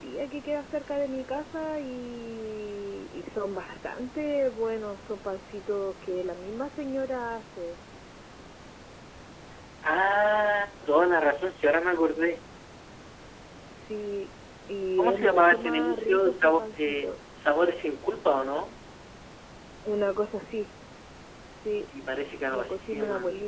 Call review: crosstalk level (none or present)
present